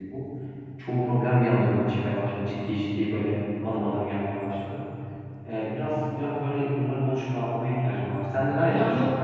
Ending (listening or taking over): taking over